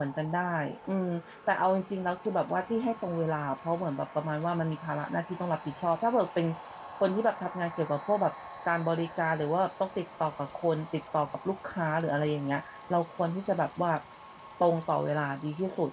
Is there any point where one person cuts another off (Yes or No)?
No